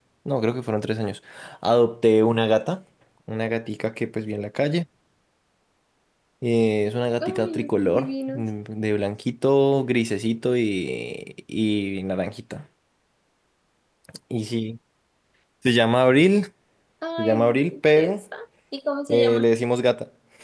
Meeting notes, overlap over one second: present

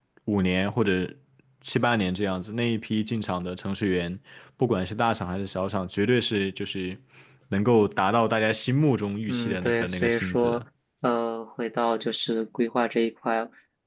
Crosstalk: present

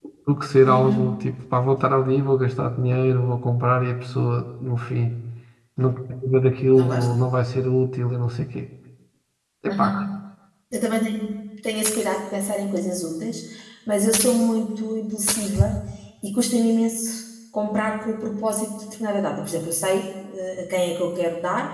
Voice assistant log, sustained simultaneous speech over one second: none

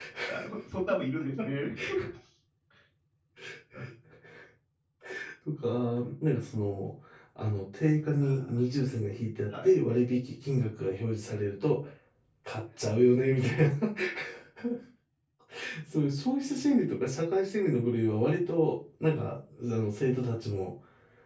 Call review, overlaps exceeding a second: none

